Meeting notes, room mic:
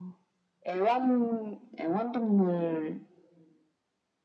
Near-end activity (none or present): none